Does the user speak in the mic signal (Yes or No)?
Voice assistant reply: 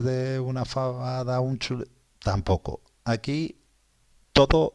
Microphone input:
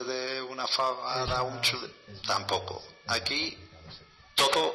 Yes